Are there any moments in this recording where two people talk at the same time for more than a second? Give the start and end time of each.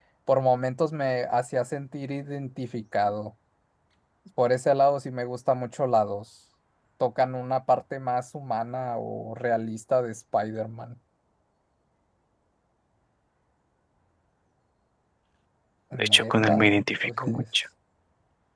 16.1-17.4

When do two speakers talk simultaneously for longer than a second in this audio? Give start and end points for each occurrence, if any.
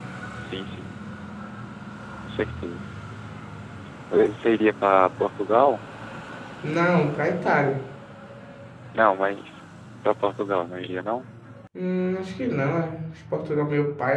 none

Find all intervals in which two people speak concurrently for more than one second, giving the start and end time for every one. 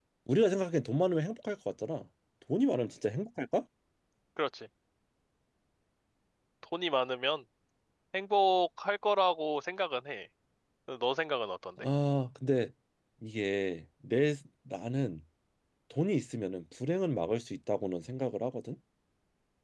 none

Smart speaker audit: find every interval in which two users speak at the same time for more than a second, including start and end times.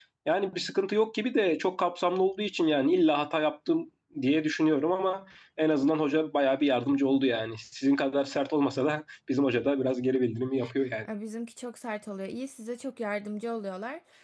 none

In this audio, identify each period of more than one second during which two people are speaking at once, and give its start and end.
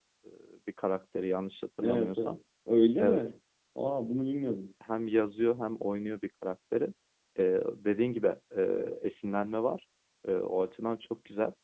none

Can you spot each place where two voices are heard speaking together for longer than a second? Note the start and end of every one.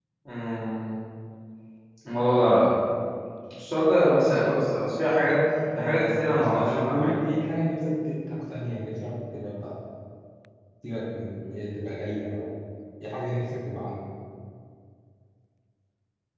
5.8-7.2

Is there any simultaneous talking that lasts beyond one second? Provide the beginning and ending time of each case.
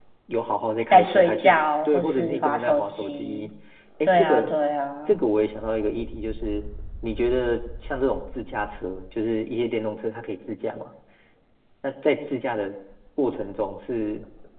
0.9-3.5

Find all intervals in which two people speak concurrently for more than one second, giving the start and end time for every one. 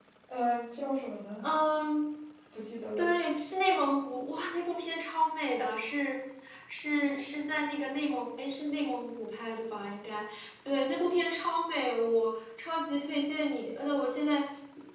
none

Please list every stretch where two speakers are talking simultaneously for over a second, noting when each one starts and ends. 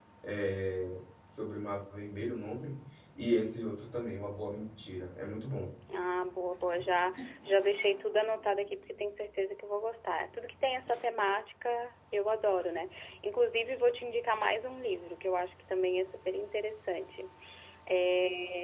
none

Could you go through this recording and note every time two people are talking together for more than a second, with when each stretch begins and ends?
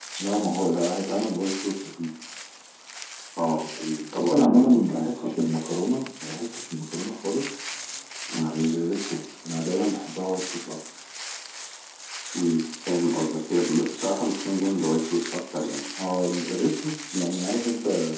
4.2-5.6

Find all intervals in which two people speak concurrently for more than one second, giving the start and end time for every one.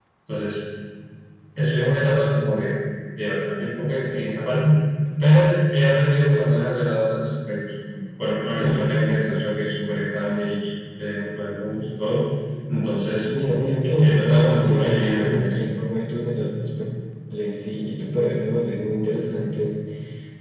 14.0-15.4

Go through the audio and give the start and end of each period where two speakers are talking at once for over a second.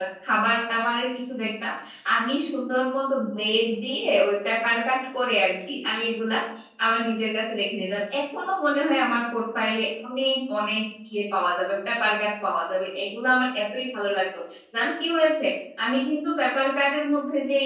none

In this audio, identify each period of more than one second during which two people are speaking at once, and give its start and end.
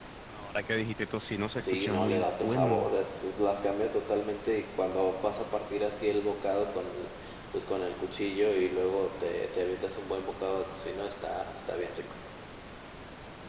1.6-2.9

